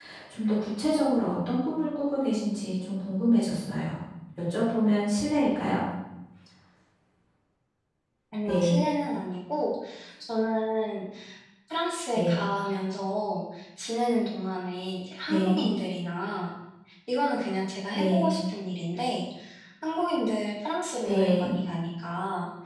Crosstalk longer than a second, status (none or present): none